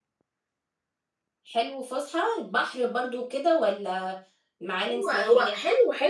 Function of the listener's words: taking over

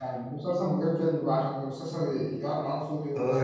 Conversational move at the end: taking over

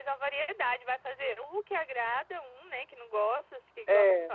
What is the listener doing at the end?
listening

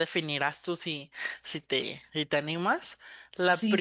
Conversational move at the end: taking over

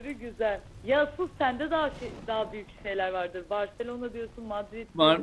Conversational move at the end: taking over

